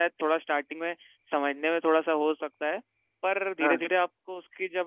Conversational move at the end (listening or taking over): listening